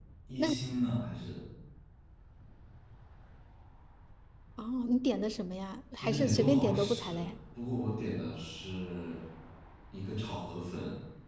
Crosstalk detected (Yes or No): Yes